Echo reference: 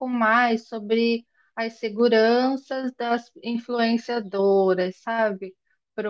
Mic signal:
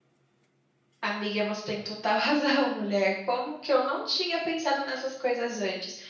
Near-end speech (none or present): present